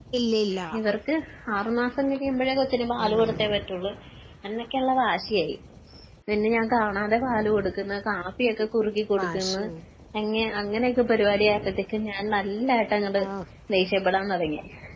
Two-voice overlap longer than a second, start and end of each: none

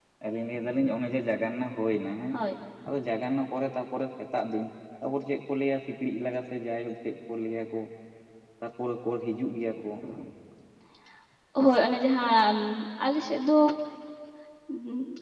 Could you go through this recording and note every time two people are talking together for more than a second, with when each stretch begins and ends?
none

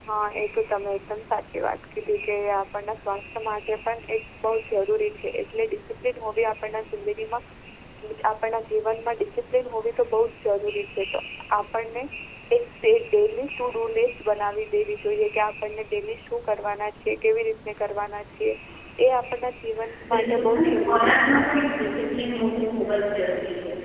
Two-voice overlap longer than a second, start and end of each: 20.1-21.3

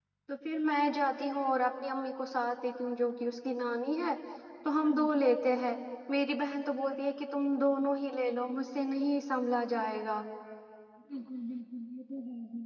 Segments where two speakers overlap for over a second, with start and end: none

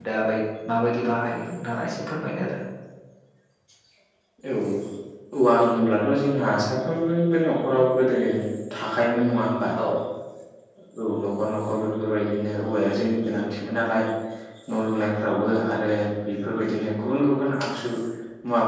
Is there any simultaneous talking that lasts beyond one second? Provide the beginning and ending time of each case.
none

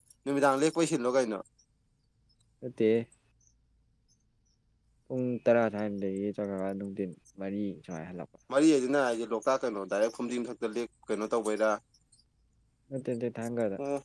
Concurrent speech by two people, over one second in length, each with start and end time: none

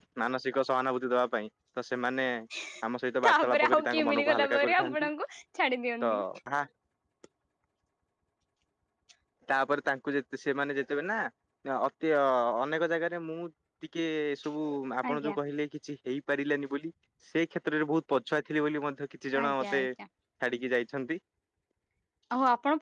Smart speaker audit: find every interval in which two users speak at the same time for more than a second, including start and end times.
3.3-5.1

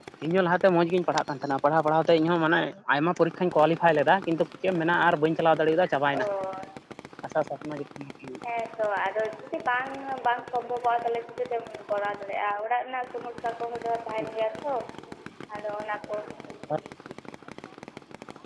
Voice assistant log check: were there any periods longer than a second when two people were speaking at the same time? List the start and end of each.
none

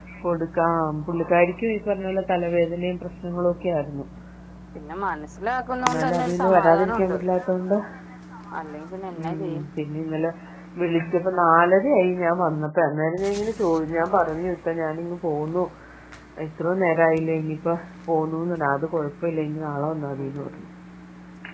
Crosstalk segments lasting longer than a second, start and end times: 5.8-7.2

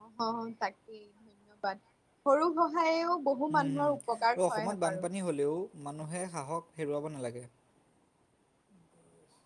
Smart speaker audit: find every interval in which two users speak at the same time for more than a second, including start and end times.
3.6-5.1

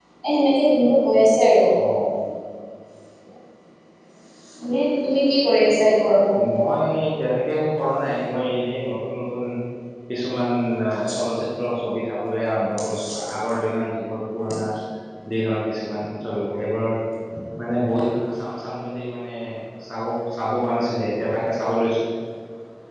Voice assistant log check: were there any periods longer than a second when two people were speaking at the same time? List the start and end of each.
none

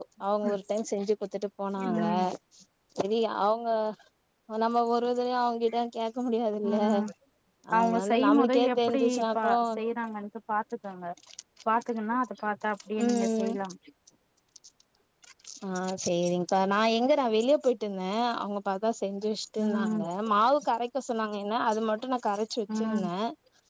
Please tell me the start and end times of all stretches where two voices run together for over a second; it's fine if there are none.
7.8-9.5

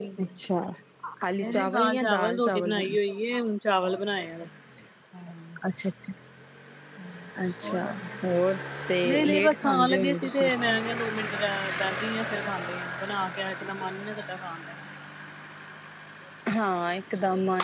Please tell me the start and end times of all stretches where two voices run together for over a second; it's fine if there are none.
1.4-3.0, 9.1-10.5

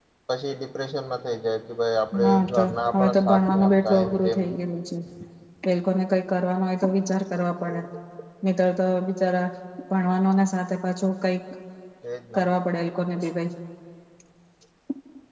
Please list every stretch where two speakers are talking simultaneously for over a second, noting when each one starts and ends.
2.2-4.4

